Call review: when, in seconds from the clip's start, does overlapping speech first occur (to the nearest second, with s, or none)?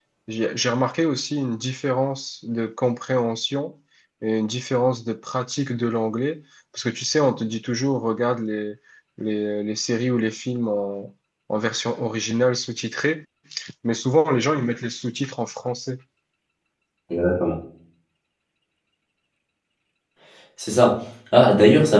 none